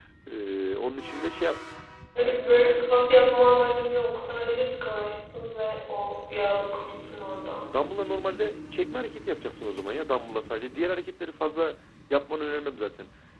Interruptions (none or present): none